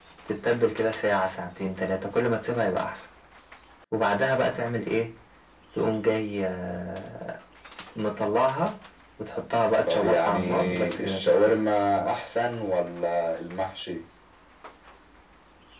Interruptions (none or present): present